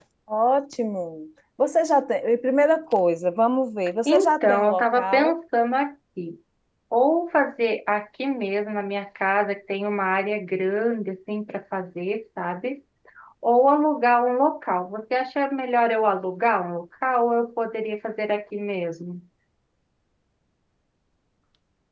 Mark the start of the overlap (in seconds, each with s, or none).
4.0 s